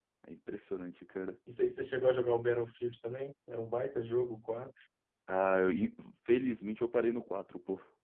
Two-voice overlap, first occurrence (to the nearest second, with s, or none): none